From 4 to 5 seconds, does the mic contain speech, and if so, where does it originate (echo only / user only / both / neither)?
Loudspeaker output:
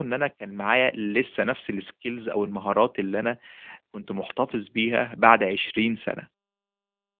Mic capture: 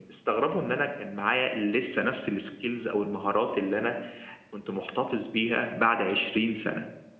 echo only